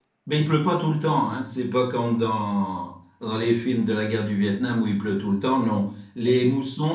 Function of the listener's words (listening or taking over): listening